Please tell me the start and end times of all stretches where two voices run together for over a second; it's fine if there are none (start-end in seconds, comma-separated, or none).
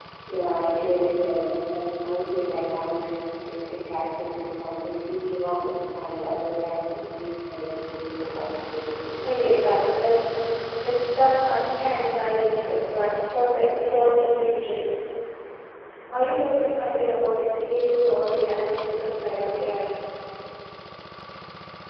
none